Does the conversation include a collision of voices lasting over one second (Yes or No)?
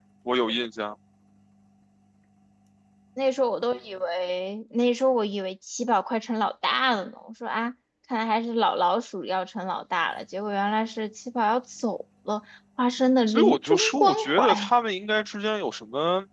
Yes